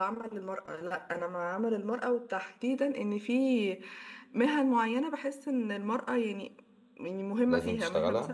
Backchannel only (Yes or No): Yes